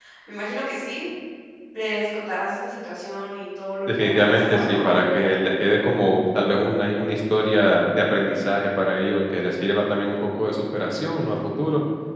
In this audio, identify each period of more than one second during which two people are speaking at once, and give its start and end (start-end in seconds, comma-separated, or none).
3.9-5.7